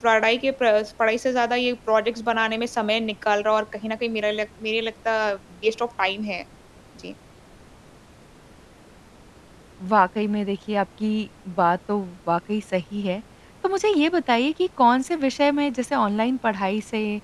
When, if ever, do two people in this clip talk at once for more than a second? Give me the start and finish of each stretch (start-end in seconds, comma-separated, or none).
none